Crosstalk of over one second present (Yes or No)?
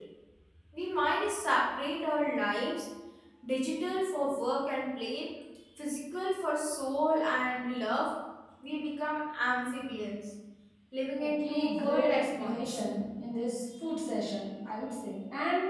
Yes